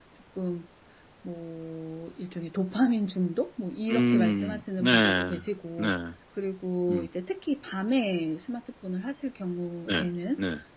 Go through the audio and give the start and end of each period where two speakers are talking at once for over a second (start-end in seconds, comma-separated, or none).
3.9-5.3